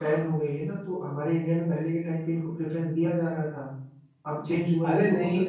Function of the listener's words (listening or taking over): taking over